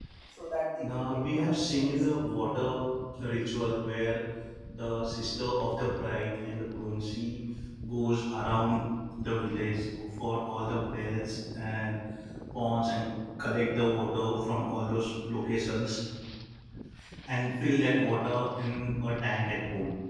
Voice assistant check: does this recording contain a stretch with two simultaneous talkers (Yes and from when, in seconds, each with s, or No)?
Yes, from 0.8 s